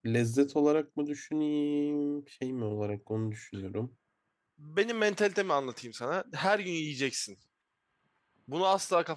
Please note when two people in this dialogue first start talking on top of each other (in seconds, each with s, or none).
none